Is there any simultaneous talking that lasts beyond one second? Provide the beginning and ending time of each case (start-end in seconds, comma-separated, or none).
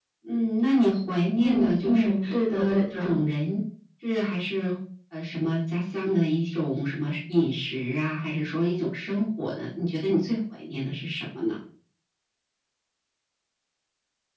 1.4-3.2